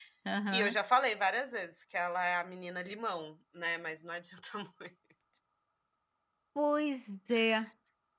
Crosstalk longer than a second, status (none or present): none